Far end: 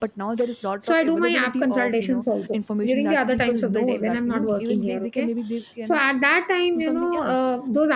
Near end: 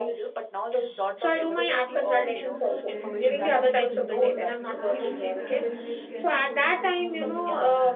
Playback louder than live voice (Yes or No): Yes